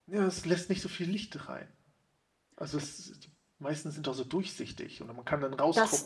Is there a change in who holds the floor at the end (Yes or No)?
Yes